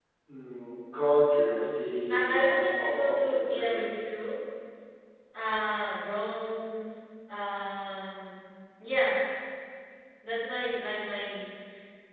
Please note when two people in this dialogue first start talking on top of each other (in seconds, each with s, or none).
2.1 s